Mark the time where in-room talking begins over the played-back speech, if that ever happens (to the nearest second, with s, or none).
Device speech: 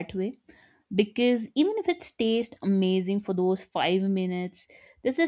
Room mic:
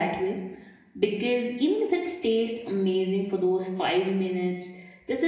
none